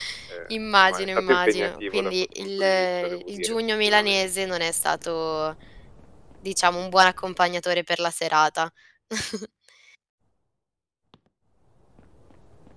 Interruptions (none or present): present